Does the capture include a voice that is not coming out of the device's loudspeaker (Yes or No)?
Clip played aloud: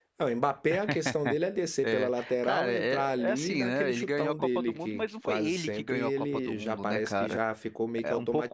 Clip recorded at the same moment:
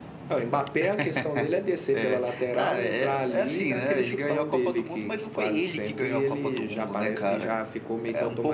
No